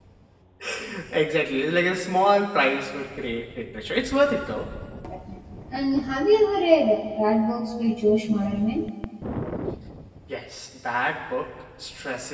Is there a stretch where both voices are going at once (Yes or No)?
No